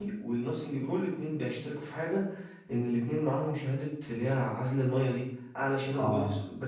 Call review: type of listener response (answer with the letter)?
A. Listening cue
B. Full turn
A